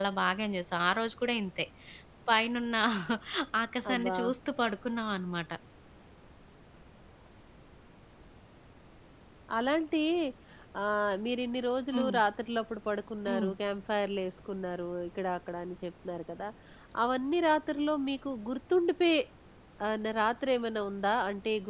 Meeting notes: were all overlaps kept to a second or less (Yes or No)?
Yes